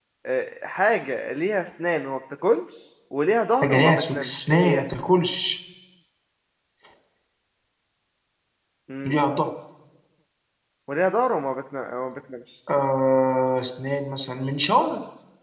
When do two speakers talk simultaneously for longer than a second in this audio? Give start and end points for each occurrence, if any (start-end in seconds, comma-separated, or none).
3.6-4.8